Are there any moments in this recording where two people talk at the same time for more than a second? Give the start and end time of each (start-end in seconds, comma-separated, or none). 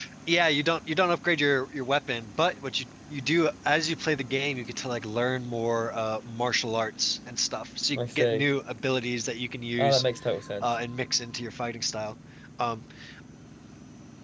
none